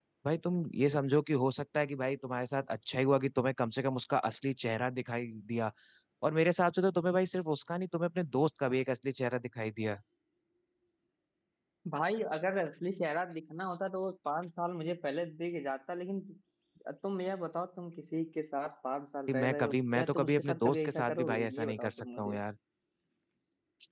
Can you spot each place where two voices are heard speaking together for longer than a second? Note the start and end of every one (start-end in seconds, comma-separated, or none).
19.3-22.3